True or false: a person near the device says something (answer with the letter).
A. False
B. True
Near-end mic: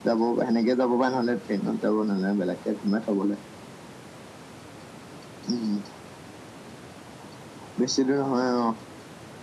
A